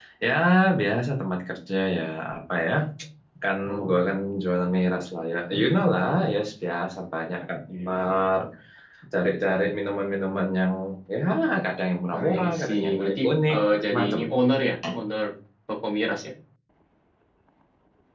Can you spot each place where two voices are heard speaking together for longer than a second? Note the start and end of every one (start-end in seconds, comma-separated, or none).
12.1-14.2